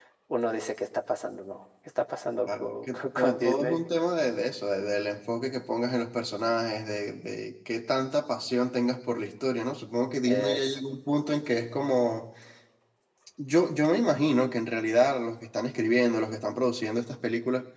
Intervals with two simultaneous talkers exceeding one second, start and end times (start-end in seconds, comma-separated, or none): 2.5-3.8